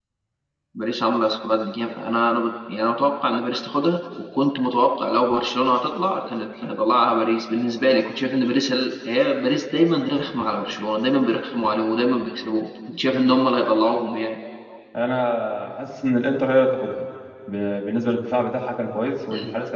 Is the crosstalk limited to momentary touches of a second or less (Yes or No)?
Yes